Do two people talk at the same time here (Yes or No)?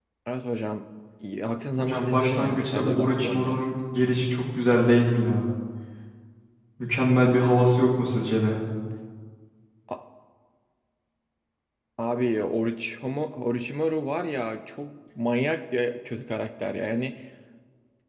Yes